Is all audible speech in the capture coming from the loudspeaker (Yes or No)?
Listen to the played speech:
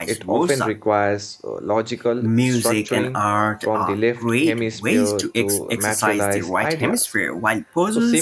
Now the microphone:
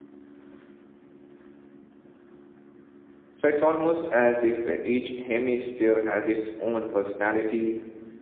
No